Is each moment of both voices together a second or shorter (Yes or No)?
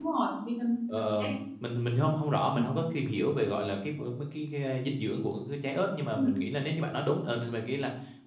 Yes